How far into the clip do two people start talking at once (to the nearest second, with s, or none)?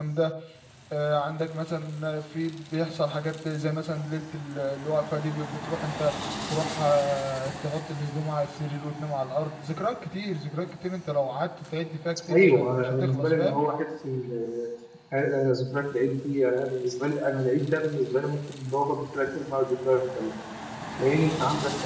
12 s